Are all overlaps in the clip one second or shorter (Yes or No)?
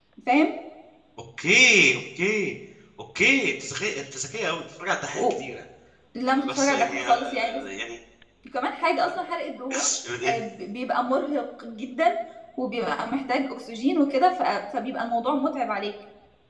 No